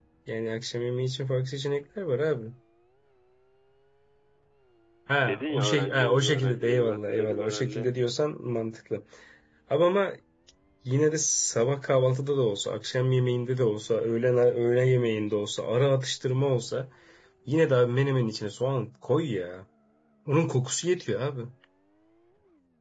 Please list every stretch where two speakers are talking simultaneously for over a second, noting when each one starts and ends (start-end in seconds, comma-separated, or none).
5.3-7.9